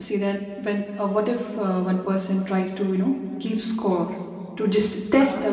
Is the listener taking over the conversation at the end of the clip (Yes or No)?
No